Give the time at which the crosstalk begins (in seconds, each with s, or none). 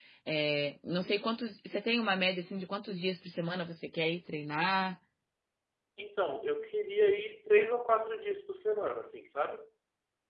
none